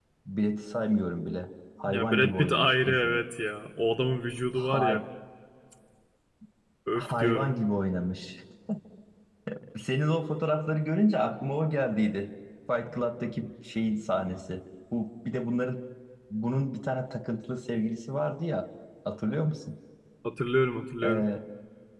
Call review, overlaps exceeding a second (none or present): present